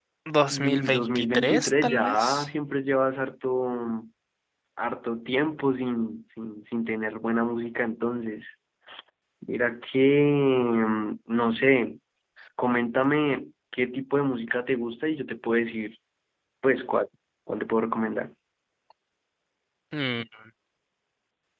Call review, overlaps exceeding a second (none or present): present